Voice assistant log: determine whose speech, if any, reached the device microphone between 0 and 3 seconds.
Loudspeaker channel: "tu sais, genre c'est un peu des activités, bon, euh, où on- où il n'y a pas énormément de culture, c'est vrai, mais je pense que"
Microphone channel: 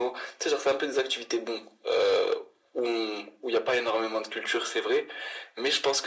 echo only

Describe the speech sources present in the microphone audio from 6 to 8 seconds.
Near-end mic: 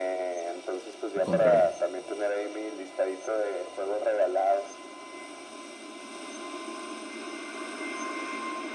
neither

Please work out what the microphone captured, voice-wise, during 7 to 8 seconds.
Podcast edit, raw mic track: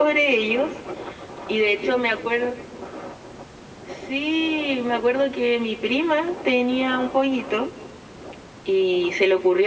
echo only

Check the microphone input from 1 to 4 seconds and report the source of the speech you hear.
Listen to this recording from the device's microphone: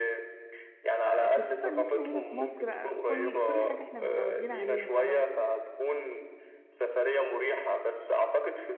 both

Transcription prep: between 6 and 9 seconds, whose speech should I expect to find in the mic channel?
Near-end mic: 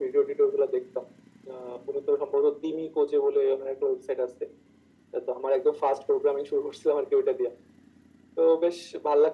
echo only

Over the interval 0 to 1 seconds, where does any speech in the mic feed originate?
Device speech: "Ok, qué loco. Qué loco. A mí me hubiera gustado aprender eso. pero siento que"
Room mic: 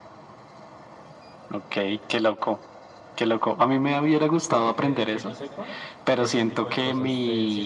neither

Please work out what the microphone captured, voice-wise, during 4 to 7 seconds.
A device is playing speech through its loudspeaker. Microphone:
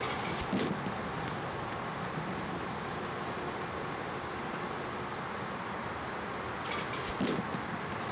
neither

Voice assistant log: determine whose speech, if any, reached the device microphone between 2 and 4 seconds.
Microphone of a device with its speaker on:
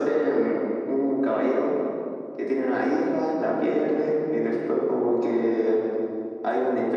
echo only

